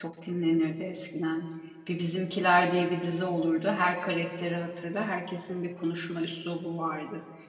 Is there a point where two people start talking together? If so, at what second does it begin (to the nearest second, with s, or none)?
none